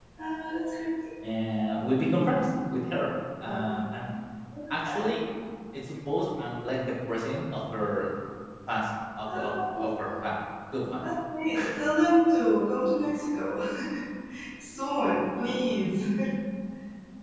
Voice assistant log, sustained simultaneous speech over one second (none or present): none